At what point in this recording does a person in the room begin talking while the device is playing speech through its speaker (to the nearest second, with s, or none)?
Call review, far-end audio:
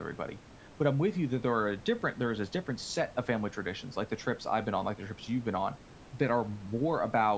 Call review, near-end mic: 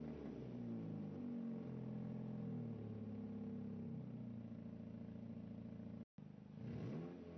none